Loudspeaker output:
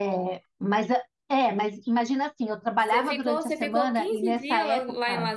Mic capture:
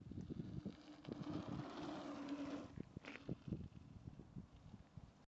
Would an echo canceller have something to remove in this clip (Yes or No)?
No